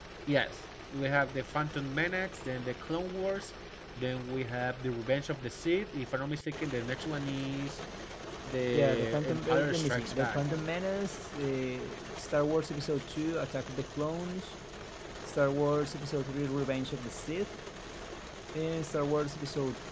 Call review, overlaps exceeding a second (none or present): present